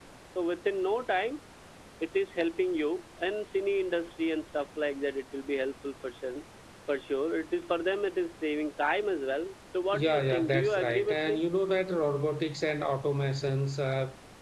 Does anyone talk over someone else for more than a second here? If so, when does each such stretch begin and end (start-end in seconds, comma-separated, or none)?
9.9-11.4